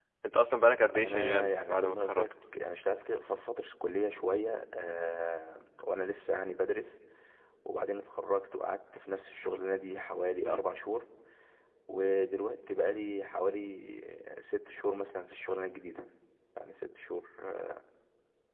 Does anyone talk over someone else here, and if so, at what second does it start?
1 s

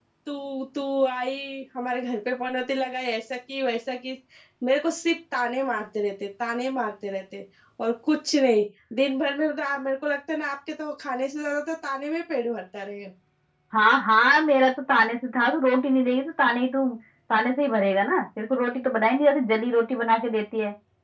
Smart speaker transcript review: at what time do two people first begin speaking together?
none

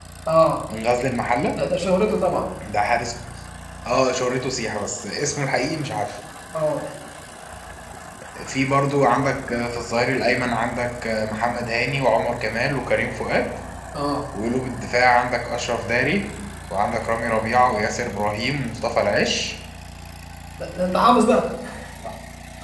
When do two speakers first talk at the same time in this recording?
none

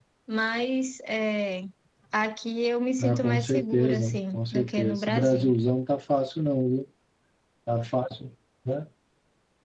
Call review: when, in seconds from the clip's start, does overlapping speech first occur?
3 s

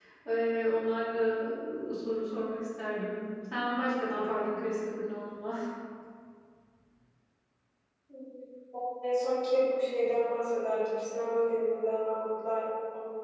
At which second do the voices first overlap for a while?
none

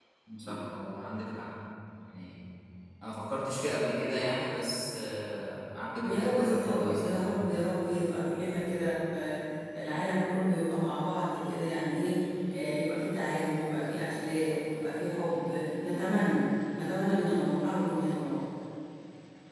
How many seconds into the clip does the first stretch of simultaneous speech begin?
6 s

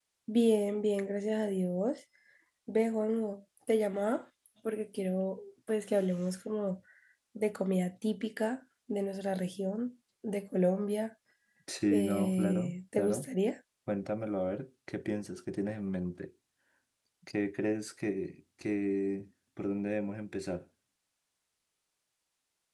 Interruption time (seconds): 12 s

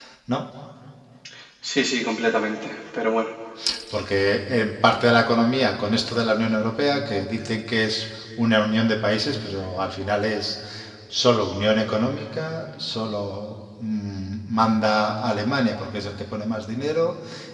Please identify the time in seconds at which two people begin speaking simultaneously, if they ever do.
none

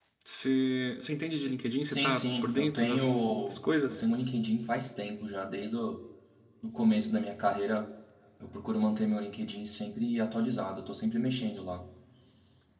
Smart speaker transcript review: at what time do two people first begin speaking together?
2 s

